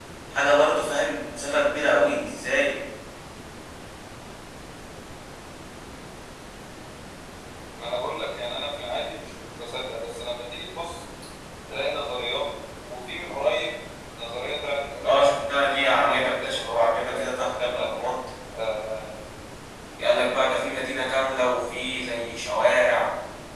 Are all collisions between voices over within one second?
No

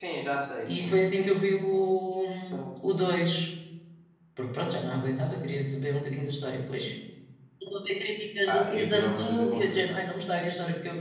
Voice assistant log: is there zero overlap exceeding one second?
No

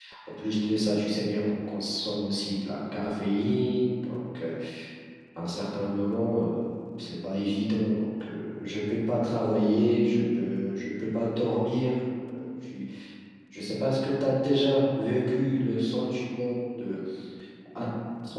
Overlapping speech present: No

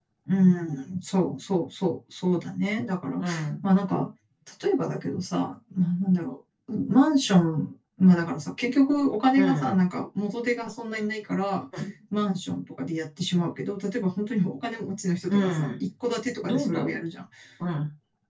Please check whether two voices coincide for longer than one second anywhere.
No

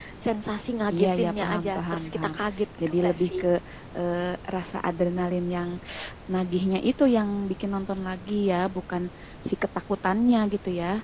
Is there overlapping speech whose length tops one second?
Yes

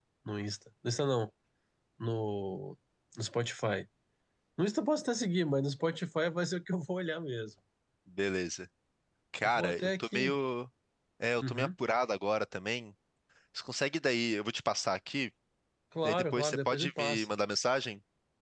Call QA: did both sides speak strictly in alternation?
No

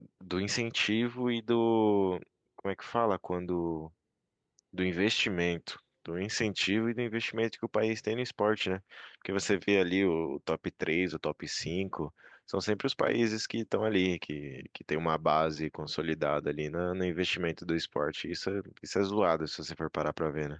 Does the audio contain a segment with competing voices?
No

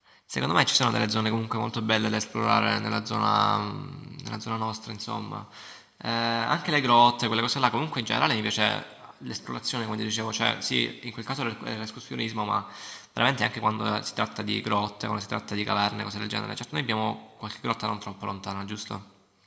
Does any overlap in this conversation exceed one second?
No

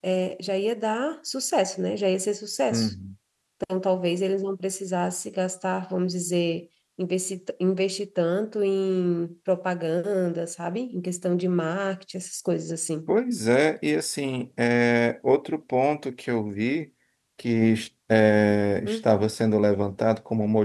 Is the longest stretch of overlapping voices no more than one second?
Yes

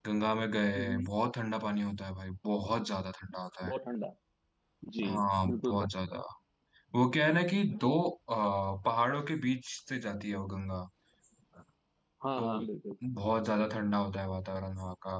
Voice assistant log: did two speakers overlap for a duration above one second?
No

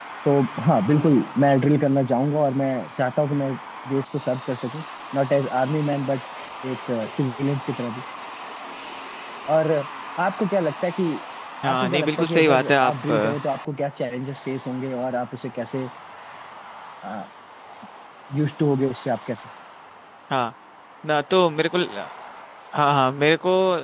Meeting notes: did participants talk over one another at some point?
Yes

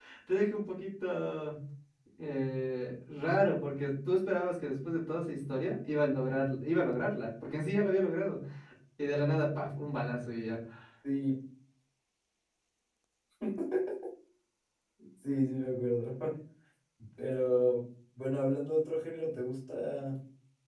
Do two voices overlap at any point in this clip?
No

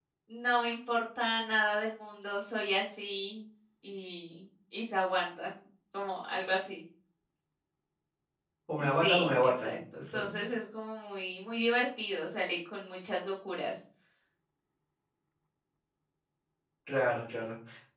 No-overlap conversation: No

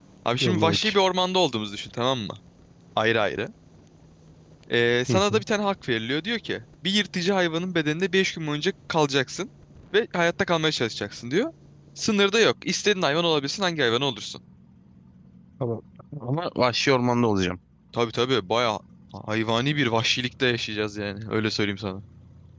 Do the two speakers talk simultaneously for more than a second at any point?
No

